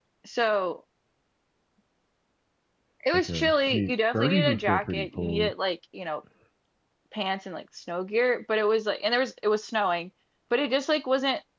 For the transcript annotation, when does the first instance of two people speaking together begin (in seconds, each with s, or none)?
3.1 s